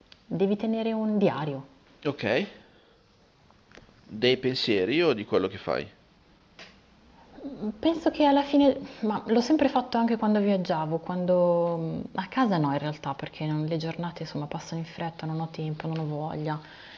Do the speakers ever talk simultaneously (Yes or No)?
No